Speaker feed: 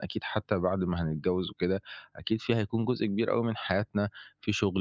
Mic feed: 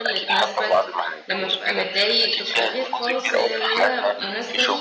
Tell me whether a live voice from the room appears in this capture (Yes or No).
Yes